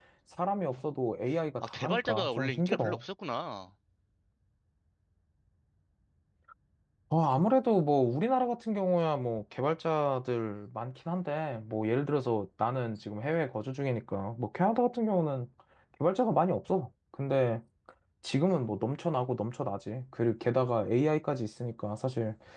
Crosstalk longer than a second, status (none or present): present